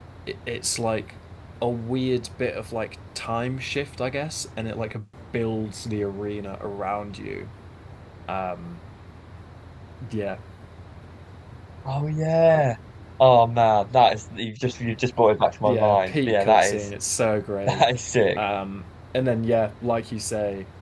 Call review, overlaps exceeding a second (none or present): present